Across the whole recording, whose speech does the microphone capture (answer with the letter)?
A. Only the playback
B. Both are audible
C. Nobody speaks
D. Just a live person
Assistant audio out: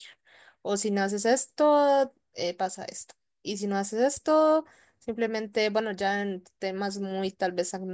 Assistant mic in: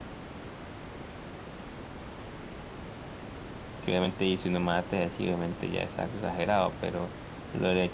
D